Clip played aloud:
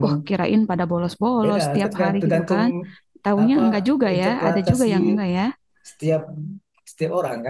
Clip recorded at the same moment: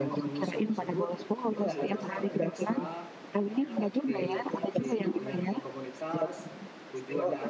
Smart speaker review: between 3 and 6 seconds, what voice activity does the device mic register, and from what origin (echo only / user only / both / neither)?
both